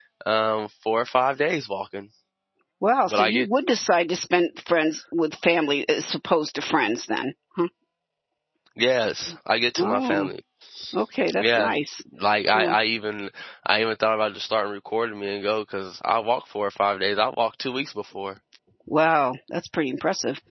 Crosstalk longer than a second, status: none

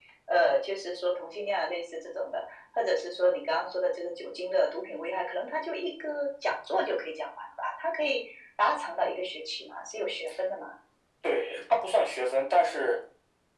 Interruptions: none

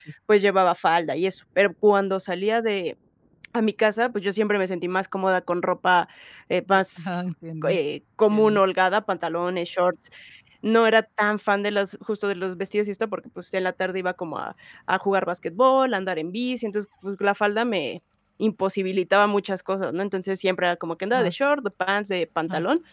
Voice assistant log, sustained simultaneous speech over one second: none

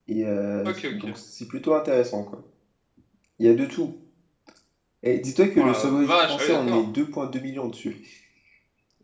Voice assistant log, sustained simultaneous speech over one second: present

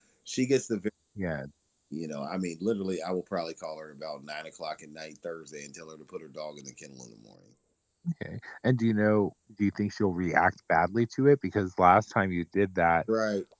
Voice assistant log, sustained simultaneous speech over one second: none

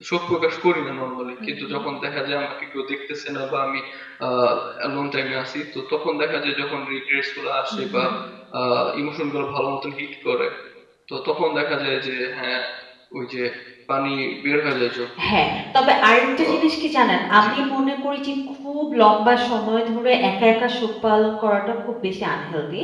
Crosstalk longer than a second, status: none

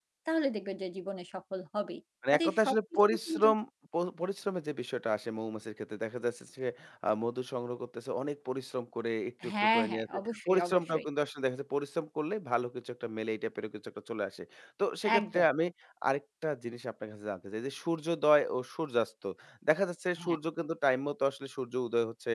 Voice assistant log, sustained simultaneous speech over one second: present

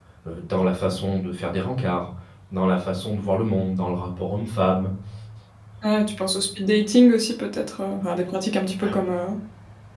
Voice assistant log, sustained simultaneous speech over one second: none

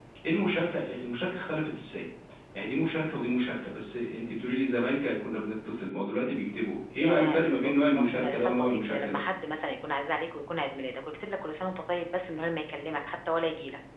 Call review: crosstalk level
present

